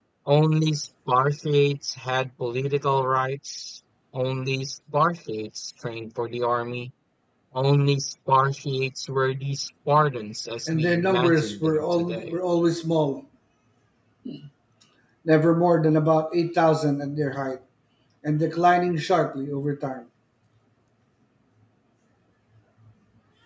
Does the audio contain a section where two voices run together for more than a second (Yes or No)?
Yes